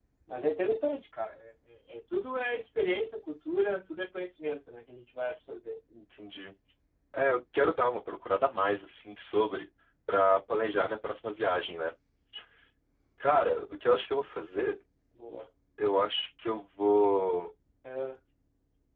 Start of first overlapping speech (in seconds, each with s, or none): none